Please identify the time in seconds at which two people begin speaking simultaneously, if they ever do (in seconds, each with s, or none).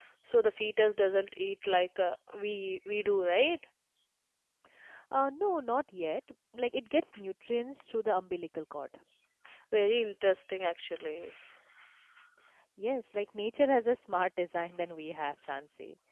none